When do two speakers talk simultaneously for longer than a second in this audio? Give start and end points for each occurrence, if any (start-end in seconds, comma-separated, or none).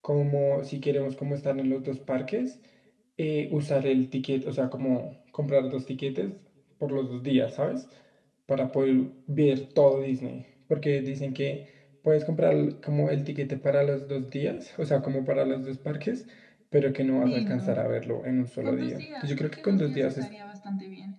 18.6-20.3